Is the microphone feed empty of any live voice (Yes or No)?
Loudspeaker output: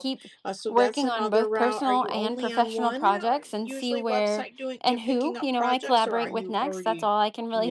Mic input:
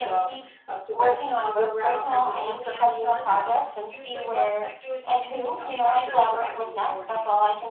Yes